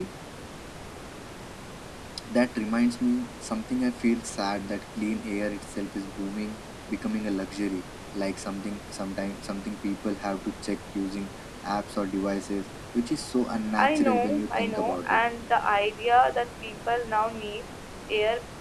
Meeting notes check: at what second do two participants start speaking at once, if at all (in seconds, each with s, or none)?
13.7 s